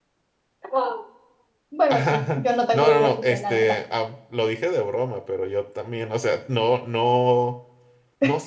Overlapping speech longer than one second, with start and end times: 1.9-3.8

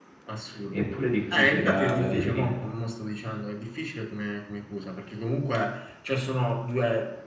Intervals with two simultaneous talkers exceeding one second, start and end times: 1.3-2.5

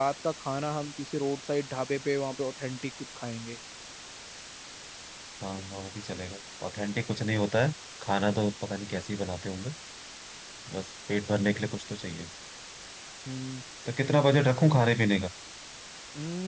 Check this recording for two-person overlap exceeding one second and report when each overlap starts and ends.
none

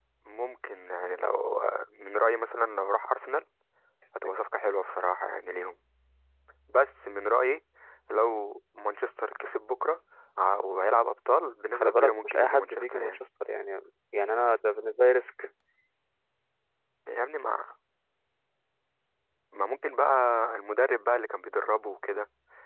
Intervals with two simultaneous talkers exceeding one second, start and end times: 11.7-13.2

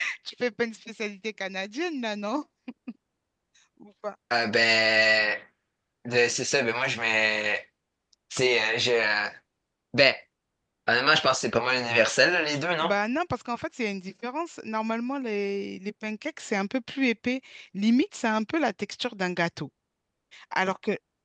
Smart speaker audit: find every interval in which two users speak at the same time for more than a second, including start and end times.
none

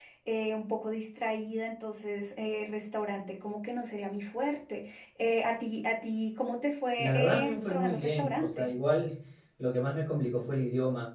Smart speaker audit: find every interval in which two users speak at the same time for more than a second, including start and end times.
7.0-8.7

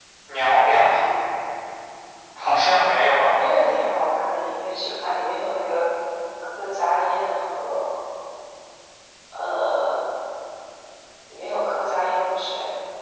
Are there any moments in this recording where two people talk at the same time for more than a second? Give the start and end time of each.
none

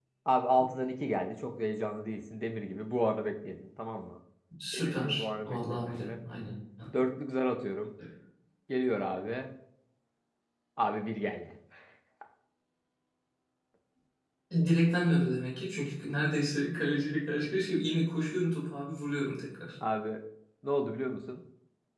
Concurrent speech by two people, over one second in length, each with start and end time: 4.7-6.2

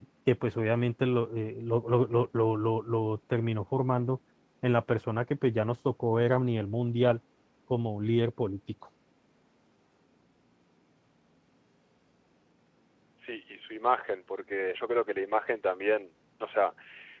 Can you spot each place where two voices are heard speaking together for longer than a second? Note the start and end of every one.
none

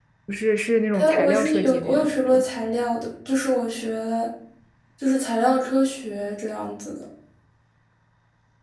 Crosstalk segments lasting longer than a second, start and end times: 0.9-2.4

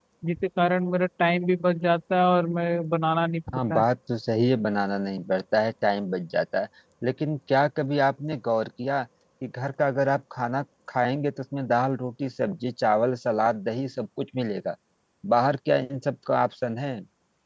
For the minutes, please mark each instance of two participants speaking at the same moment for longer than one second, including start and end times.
none

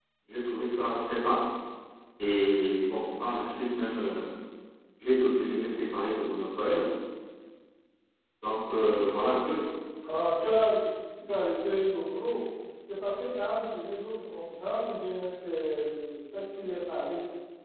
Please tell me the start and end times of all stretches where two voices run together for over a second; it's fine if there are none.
none

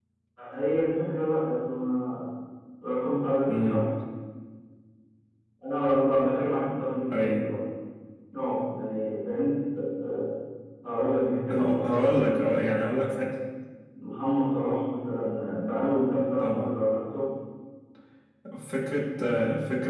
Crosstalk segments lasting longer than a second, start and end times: 11.5-13.1

